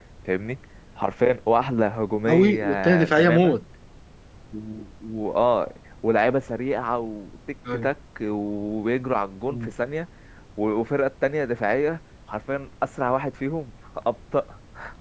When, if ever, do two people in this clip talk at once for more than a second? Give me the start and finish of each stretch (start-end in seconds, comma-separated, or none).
2.3-3.6